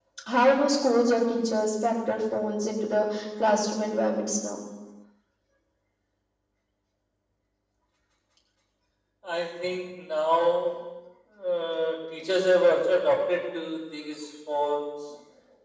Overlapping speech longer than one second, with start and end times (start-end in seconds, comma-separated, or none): none